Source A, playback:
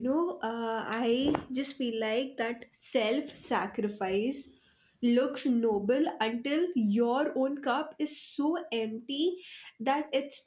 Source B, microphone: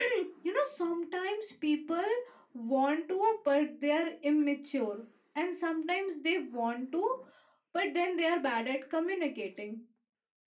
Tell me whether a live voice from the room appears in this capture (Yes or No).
Yes